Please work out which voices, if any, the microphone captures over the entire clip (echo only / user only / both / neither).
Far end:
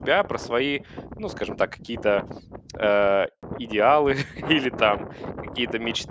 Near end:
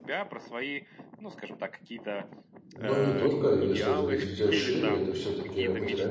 both